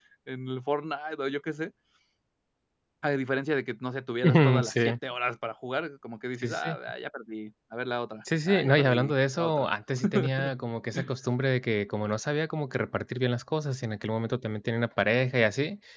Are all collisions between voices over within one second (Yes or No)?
No